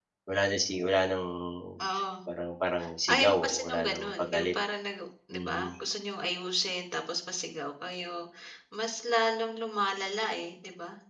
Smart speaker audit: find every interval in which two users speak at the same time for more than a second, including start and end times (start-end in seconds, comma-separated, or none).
3.1-4.5